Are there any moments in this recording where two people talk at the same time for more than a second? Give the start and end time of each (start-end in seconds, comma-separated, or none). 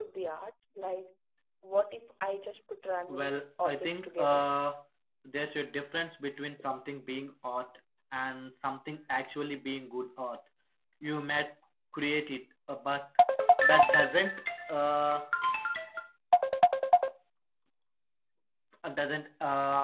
3.1-4.4